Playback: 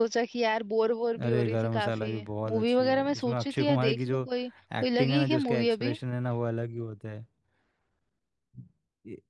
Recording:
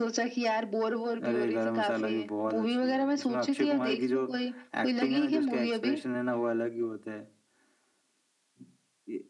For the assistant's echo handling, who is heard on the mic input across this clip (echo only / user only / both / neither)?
echo only